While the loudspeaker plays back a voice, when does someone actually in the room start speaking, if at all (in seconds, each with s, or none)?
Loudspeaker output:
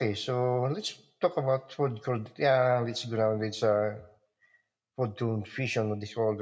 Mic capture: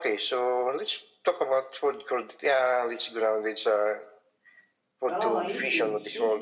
5.1 s